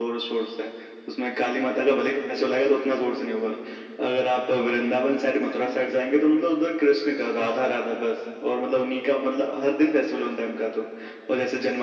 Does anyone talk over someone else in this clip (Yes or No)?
No